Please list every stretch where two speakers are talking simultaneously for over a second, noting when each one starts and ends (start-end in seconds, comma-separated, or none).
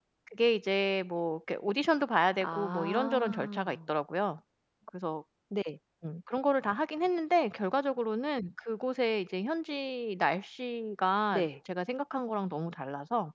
2.4-3.8